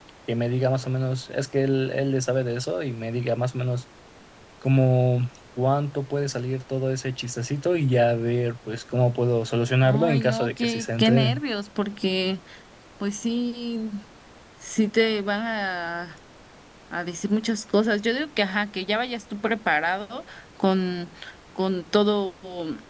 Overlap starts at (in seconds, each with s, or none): 9.8 s